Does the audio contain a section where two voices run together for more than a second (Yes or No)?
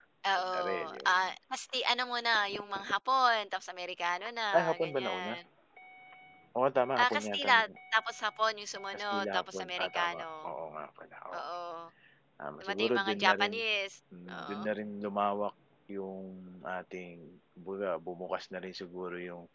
Yes